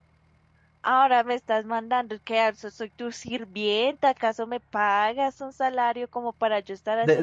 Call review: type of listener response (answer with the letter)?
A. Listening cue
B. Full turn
B